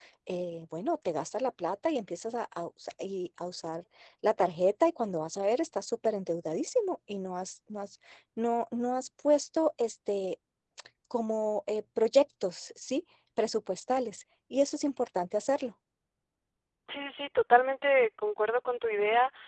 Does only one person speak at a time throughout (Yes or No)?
Yes